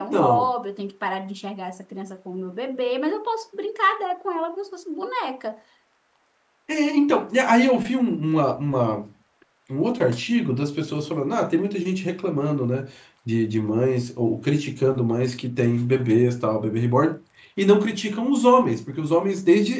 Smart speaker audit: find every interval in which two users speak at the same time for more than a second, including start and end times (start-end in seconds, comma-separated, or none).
none